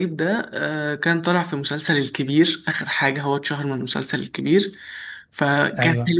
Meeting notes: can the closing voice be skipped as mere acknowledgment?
Yes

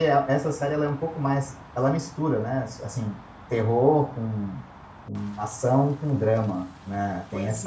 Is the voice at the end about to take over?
Yes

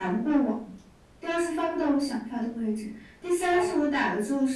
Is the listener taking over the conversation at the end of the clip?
No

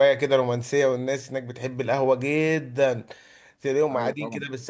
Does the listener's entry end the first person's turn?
No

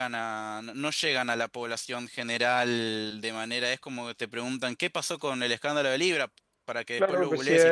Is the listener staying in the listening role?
No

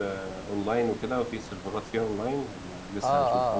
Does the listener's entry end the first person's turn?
Yes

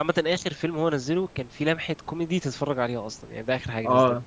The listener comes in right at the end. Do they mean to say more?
Yes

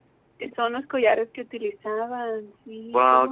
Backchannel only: No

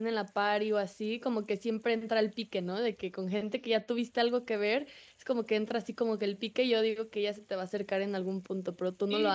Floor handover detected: Yes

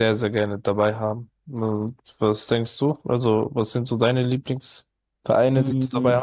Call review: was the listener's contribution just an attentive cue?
No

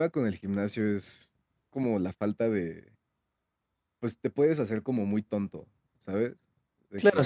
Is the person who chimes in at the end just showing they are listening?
No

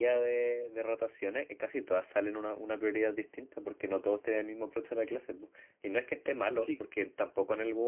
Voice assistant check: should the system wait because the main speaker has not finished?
Yes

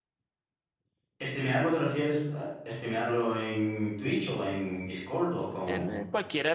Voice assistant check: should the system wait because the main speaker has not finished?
No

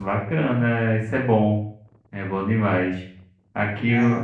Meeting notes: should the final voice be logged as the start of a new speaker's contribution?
No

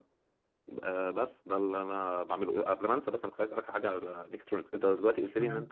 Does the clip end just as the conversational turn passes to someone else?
No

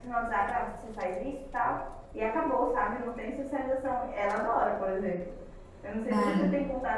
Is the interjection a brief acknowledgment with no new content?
Yes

